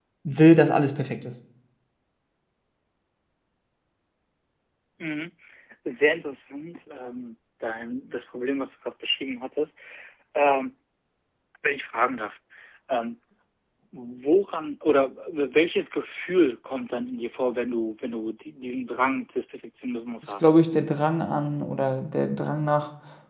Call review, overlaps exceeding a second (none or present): none